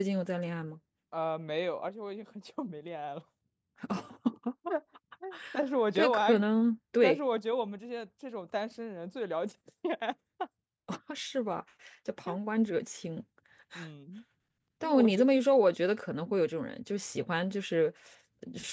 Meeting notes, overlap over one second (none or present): none